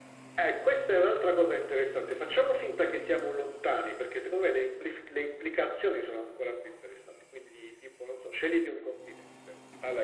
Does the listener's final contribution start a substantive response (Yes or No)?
Yes